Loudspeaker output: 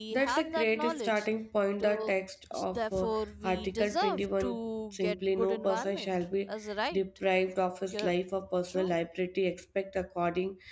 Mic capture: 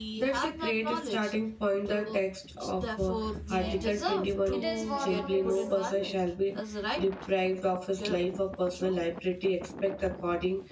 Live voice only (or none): same, uh, it is what it is.